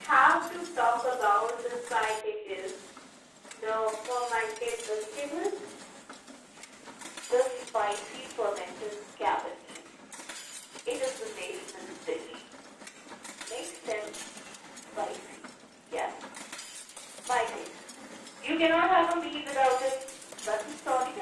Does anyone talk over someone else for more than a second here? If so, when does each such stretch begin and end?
none

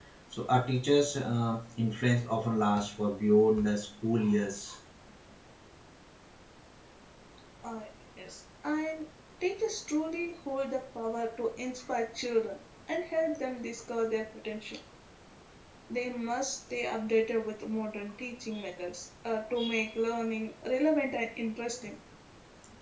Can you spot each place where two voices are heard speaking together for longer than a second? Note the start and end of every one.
none

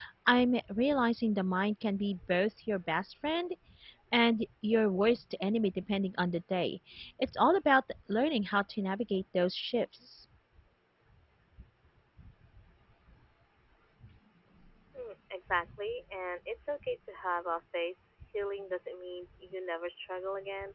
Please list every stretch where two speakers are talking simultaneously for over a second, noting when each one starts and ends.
none

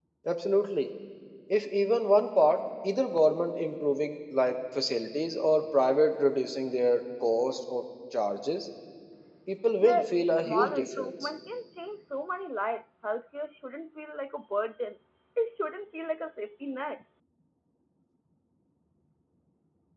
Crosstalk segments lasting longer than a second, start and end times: 9.8-11.1

